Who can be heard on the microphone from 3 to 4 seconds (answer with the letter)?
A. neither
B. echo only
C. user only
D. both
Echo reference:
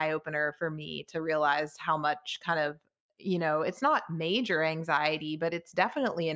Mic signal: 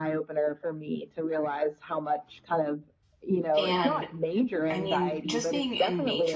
D